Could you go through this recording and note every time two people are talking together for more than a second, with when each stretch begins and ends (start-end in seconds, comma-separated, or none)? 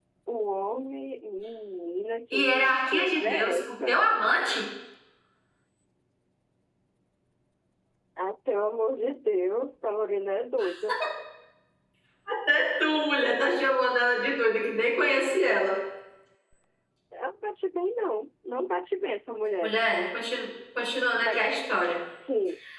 2.3-4.0